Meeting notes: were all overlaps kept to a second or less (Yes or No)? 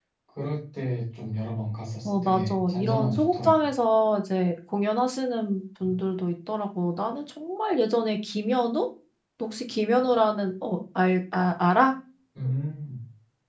No